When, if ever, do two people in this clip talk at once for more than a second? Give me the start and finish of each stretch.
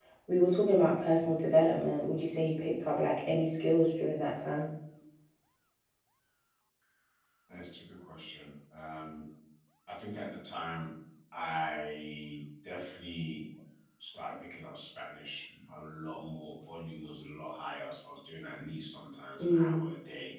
none

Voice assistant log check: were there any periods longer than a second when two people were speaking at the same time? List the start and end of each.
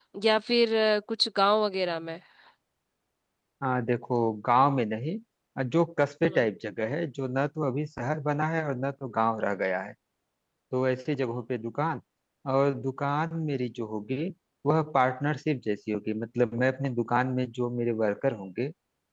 none

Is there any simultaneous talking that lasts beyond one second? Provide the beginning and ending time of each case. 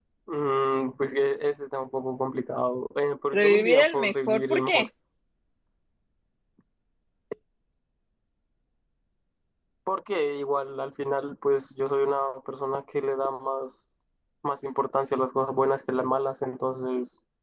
3.3-4.9

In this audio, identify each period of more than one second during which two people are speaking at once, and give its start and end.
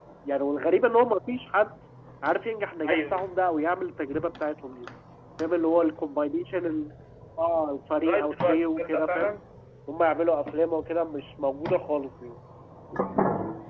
8.0-9.4

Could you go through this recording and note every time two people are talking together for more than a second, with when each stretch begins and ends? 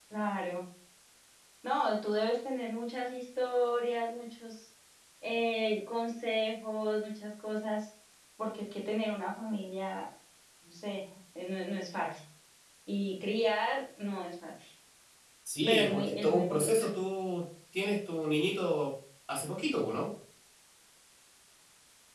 15.7-16.9

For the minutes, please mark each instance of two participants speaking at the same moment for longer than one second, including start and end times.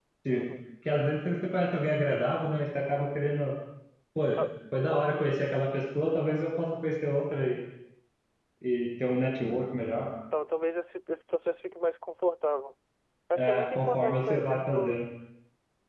13.3-15.0

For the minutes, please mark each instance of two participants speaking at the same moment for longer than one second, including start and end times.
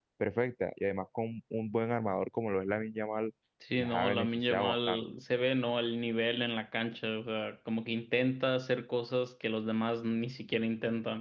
3.8-5.0

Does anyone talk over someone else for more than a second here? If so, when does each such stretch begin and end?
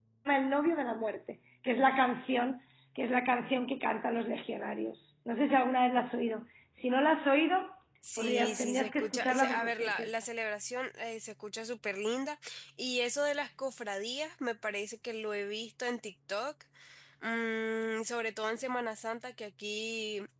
8.2-10.2

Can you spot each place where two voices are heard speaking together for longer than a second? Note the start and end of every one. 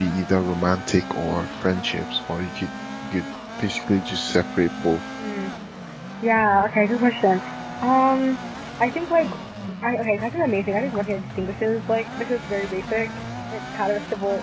none

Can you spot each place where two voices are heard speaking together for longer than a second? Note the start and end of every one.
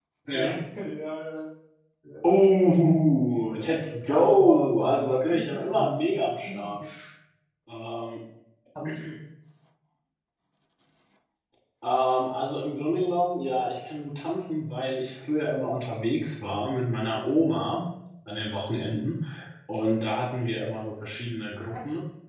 4.0-6.0

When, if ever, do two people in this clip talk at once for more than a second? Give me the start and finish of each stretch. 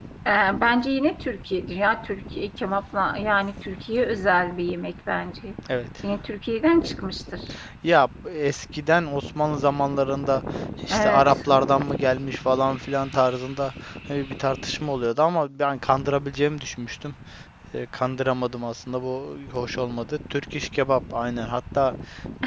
none

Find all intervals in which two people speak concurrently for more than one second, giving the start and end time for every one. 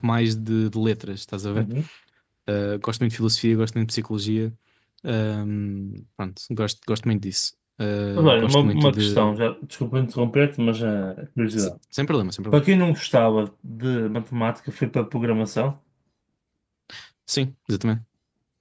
8.2-9.4

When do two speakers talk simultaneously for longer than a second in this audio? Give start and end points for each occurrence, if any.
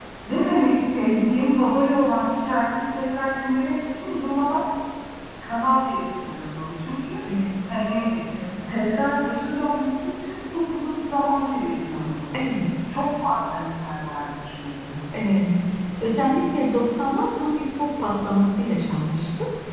none

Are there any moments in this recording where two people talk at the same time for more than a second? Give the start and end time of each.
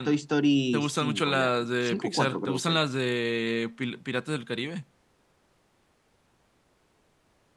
0.7-2.9

